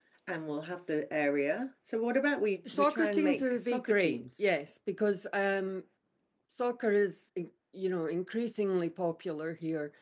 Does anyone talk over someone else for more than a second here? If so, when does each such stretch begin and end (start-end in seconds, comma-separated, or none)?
2.7-4.2